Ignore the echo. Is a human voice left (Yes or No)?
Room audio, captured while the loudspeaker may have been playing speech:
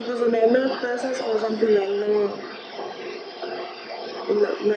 No